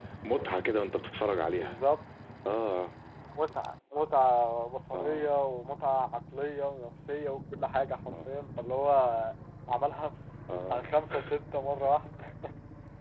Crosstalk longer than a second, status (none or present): none